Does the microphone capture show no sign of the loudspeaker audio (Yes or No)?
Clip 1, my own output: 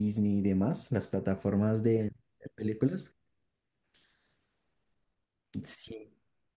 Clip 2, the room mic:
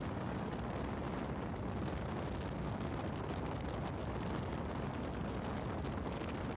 Yes